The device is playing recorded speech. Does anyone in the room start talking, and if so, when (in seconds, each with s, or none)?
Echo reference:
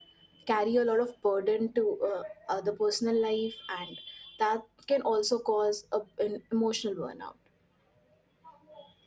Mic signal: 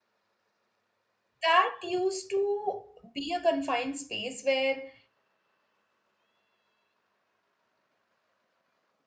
1.4 s